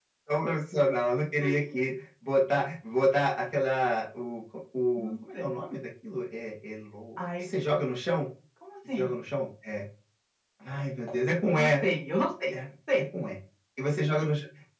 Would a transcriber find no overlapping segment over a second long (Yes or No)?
Yes